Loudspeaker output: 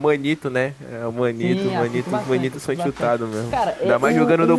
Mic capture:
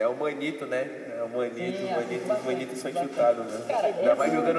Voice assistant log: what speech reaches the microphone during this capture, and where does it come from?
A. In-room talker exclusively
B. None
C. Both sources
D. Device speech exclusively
C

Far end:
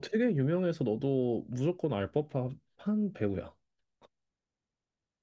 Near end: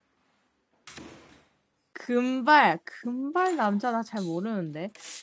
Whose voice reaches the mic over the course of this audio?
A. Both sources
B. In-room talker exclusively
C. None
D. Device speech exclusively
B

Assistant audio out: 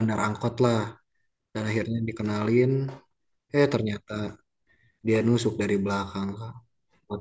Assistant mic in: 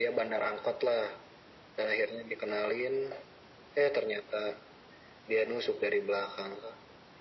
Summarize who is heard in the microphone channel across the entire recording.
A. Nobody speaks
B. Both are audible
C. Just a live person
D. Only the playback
D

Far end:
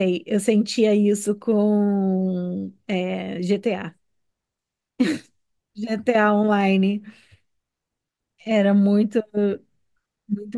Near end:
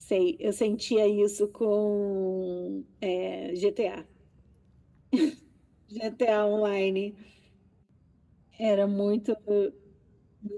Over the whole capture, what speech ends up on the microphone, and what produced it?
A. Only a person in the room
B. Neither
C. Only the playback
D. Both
C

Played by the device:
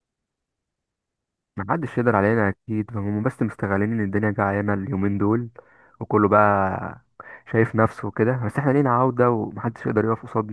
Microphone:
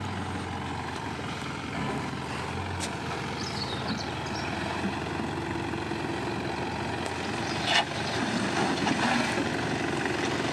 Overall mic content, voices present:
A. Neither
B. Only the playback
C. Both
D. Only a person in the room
A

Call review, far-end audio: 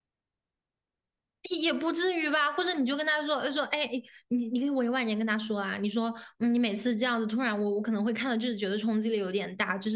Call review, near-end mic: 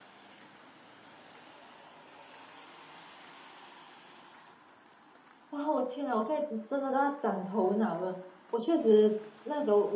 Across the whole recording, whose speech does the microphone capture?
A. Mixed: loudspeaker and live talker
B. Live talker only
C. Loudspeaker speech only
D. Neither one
B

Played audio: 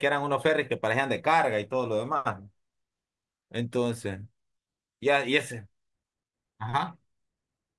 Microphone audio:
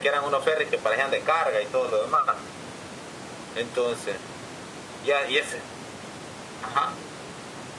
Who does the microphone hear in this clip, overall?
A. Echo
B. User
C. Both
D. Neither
A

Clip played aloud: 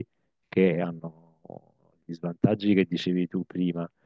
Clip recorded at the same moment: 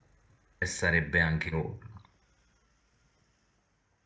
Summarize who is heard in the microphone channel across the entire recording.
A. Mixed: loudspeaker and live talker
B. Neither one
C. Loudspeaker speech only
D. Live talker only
D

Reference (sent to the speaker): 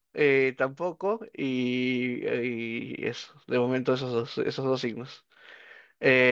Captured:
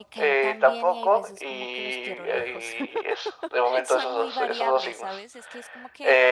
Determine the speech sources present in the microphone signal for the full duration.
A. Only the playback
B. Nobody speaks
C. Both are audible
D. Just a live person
C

